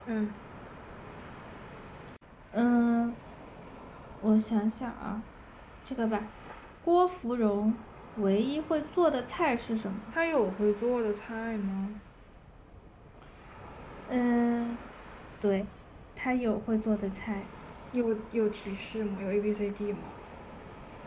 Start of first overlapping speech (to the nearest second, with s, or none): none